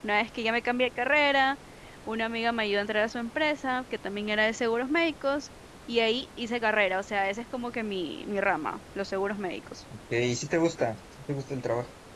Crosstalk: none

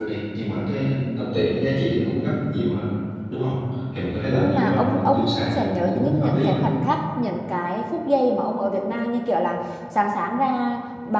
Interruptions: present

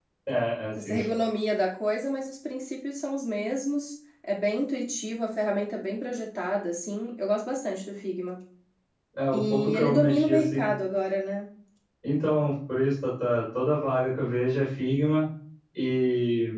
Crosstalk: present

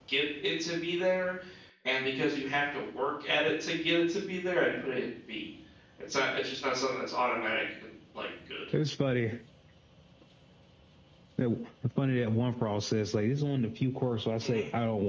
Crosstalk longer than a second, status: none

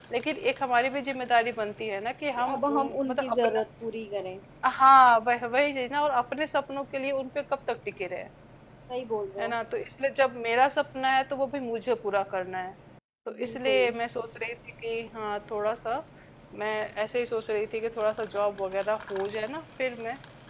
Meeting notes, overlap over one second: present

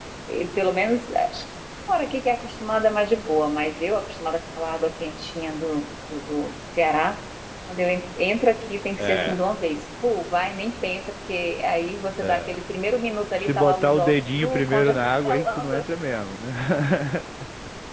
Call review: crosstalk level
present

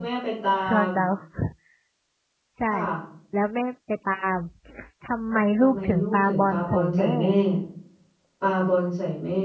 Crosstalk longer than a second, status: present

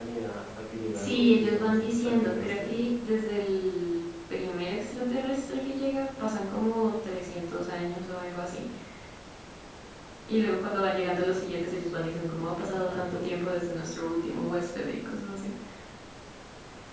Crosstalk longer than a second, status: present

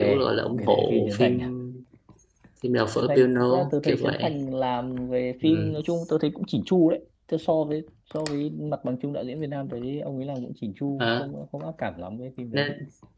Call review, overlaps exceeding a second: present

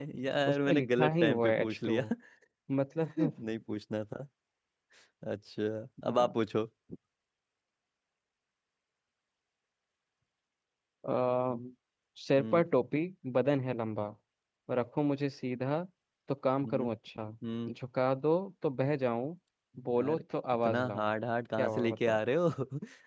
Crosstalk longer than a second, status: present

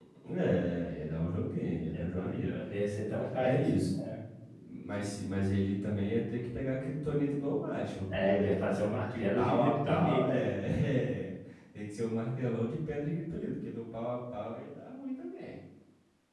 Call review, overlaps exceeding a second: present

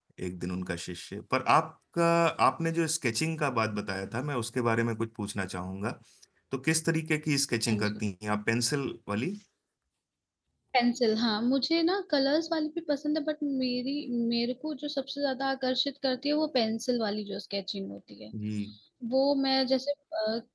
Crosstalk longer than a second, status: none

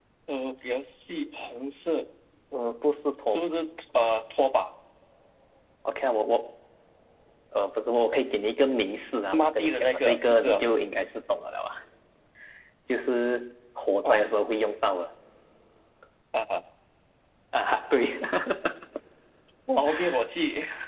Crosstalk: present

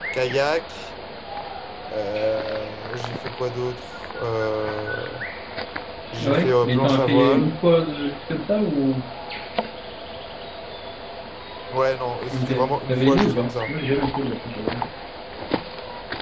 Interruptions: present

